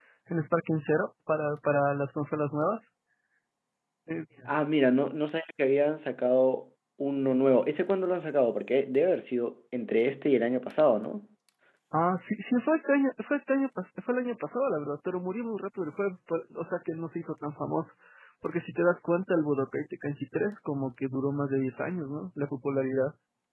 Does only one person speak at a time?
Yes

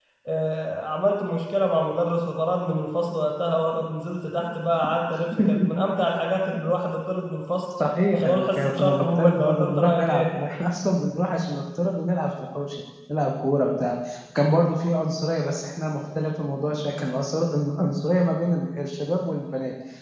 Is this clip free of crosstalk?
No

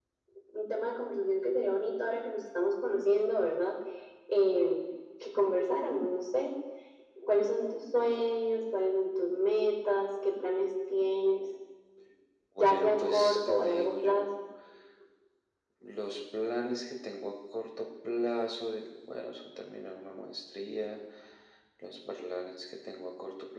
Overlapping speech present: Yes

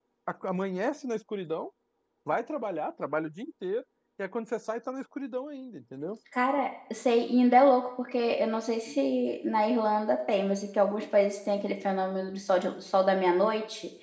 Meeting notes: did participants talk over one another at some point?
No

